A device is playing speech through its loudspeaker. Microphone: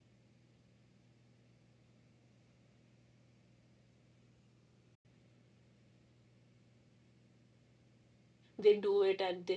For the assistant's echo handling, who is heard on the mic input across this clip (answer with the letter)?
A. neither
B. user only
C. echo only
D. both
B